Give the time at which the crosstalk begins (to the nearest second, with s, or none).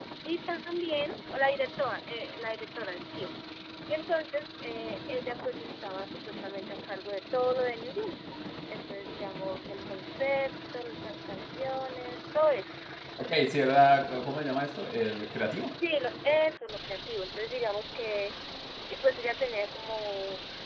none